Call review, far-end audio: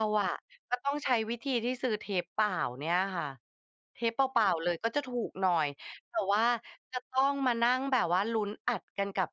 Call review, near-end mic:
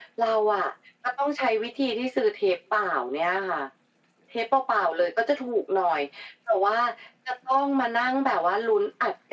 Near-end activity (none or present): none